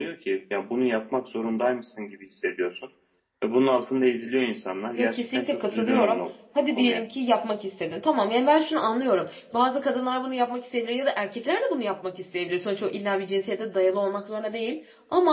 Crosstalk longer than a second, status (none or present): present